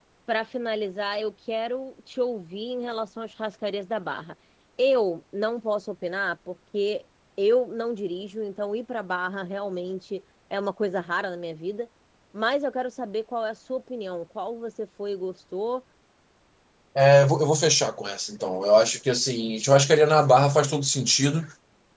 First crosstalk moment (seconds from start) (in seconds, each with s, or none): none